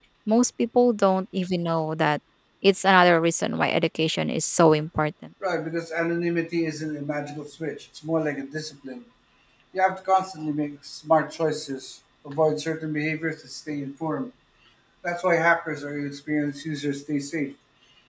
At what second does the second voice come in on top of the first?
none

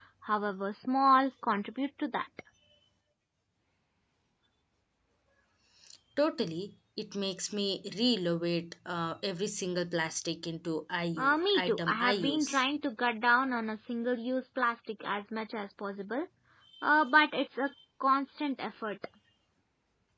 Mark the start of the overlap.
11.2 s

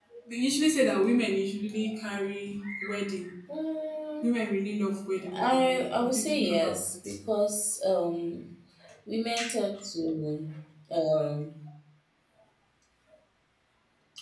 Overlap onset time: 5.3 s

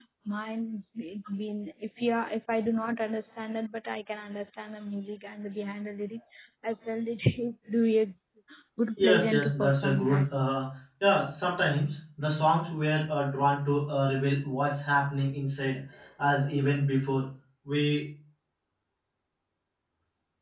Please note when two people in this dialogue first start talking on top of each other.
9.0 s

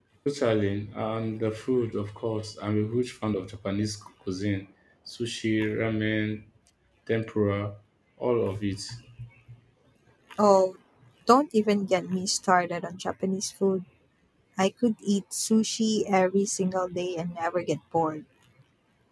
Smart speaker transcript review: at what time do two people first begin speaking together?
none

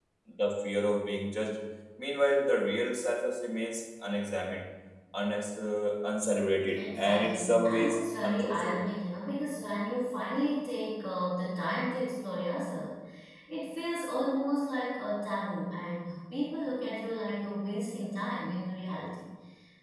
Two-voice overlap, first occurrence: 6.8 s

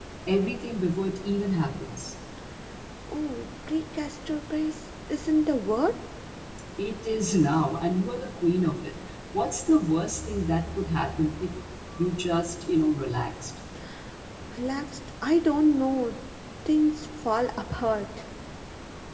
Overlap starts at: none

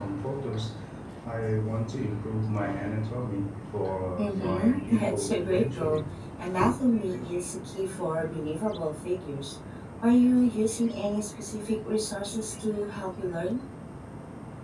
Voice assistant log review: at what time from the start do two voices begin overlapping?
4.2 s

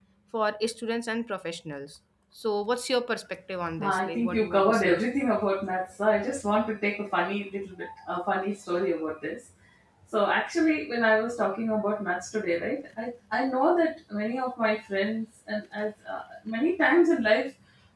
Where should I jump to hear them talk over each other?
3.7 s

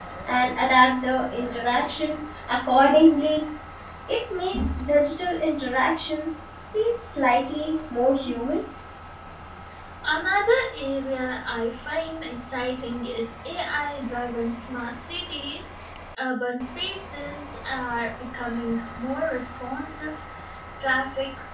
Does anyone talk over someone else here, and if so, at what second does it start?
none

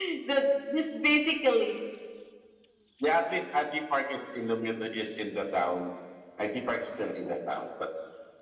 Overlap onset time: none

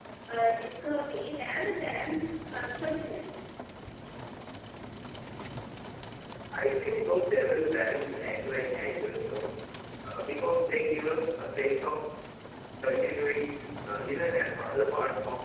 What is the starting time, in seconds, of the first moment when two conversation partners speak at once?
none

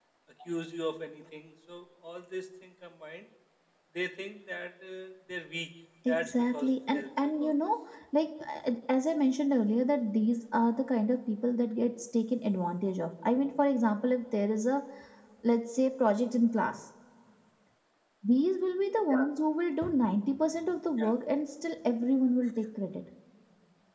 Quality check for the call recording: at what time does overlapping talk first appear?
6.0 s

